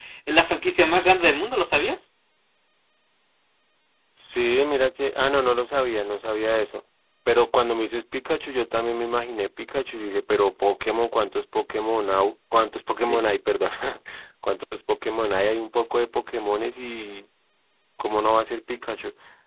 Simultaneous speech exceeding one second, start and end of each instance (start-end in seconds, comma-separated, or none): none